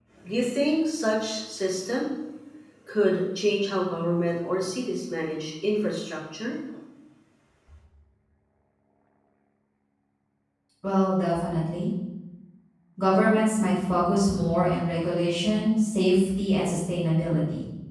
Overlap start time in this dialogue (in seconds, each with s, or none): none